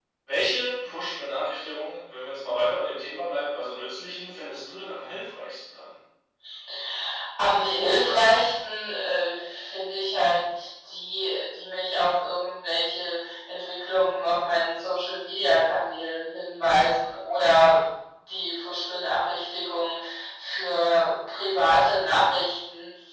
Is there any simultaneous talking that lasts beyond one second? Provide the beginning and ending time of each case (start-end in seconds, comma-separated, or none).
none